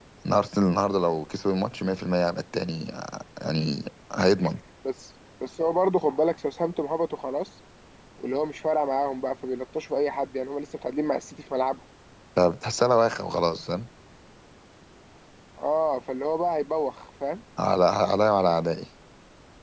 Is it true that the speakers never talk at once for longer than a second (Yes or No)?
Yes